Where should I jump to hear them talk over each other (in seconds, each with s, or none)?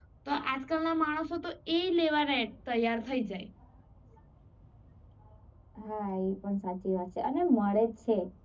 none